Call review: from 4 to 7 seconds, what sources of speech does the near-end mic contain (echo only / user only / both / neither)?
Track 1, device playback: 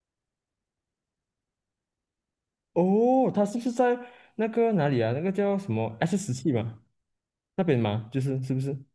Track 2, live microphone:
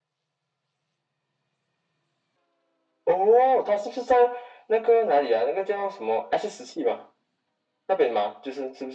echo only